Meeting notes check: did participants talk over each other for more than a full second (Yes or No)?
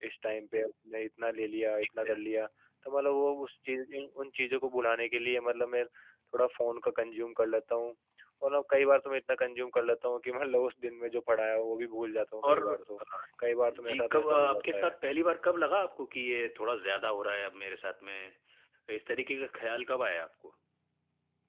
Yes